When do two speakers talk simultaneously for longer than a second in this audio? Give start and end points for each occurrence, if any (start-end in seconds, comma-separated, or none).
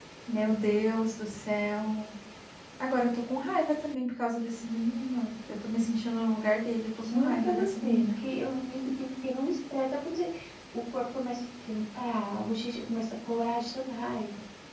7.0-8.2